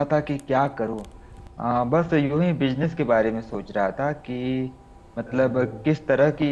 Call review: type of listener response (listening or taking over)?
listening